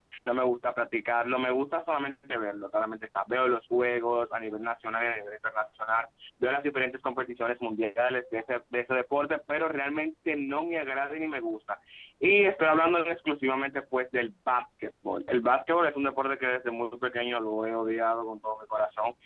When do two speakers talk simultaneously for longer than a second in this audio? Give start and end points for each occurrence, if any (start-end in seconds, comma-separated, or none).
none